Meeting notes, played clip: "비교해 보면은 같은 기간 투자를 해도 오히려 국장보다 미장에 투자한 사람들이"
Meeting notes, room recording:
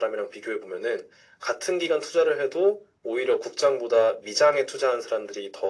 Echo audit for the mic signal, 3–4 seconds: echo only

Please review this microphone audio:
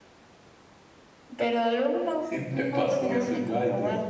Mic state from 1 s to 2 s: echo only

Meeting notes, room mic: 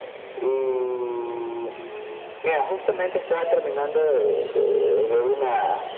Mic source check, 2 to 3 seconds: echo only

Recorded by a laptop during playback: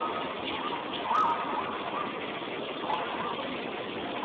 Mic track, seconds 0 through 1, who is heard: neither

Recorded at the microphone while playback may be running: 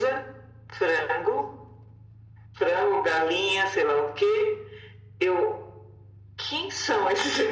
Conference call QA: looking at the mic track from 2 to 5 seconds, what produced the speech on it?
echo only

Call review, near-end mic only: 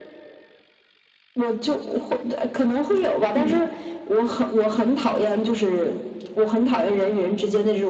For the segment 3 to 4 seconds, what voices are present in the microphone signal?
both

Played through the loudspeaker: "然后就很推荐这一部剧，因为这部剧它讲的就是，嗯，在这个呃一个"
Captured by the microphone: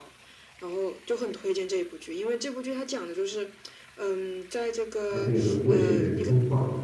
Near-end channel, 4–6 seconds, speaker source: both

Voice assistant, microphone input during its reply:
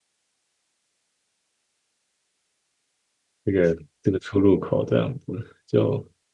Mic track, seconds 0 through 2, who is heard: neither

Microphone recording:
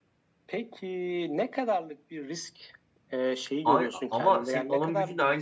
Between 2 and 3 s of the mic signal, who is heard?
echo only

